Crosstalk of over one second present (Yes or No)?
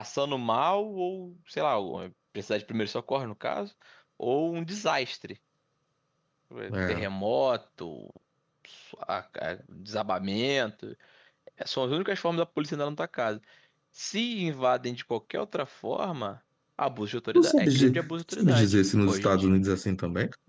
Yes